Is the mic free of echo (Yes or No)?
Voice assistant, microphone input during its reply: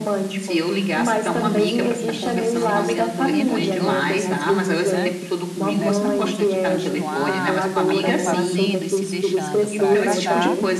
No